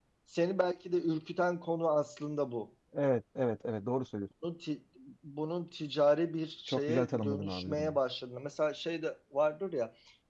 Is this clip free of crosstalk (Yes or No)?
No